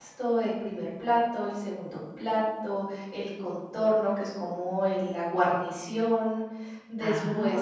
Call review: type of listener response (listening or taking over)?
listening